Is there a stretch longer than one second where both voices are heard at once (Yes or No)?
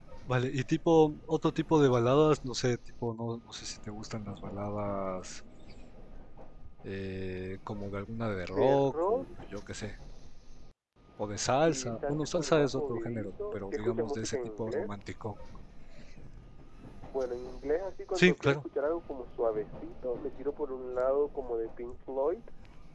Yes